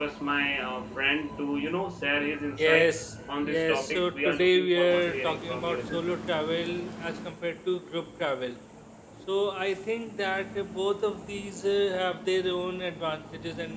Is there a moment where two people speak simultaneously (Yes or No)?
Yes